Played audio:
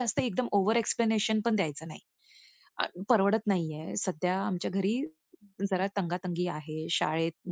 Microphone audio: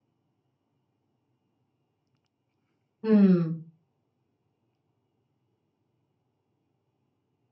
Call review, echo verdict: none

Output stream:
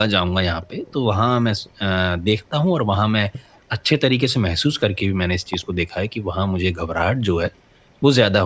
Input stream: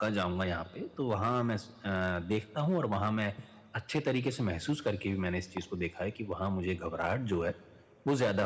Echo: present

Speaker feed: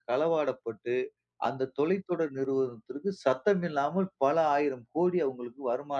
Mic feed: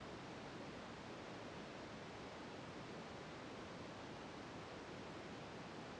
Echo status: none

